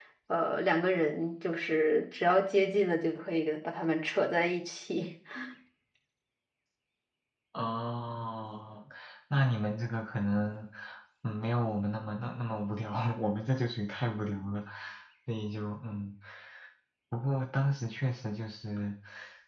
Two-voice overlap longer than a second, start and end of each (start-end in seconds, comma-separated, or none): none